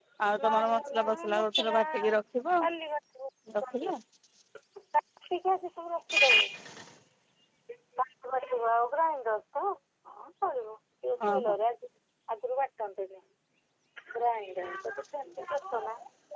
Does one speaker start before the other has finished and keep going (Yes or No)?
Yes